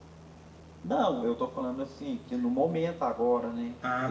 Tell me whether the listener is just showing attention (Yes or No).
No